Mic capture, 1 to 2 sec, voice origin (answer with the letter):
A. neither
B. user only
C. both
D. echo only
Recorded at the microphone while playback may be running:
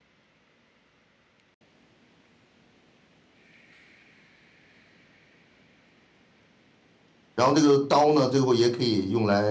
A